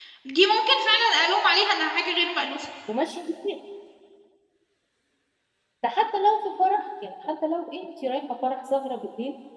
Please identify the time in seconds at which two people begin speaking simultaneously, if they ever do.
none

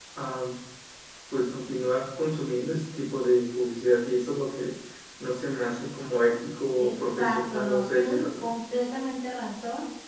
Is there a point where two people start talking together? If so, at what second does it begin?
6.8 s

